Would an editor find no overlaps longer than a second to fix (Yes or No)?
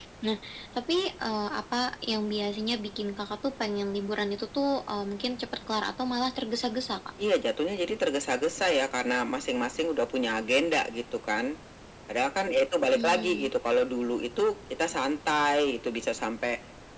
Yes